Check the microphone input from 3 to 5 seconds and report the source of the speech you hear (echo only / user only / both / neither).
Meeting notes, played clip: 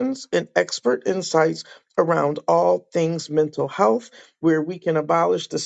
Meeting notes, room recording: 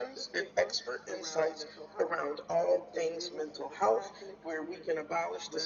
both